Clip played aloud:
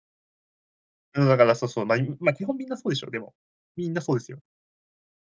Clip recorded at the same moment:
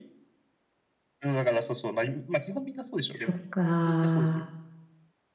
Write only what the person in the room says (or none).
そっか。